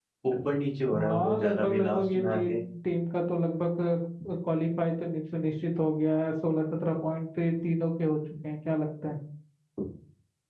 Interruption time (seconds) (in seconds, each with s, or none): 0.9 s